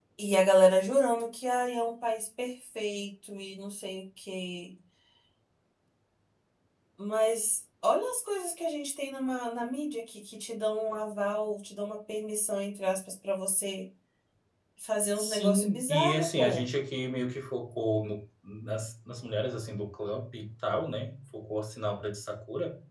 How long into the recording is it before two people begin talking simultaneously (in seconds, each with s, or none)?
15.2 s